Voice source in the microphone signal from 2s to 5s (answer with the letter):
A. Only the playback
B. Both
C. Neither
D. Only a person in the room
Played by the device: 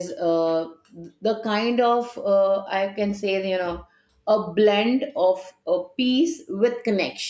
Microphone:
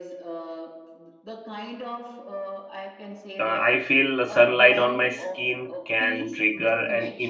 B